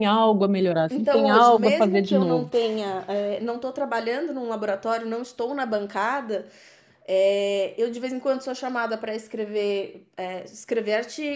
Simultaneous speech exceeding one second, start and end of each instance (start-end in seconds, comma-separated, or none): 1.0-2.5